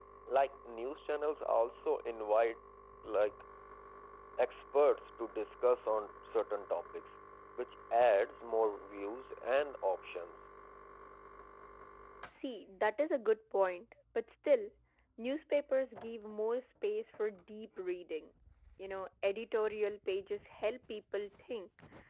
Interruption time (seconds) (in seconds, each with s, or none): none